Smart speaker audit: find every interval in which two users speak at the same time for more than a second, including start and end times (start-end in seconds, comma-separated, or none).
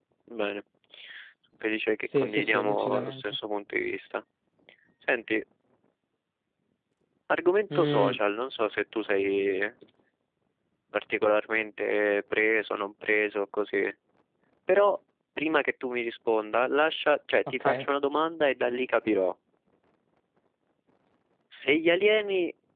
2.2-3.4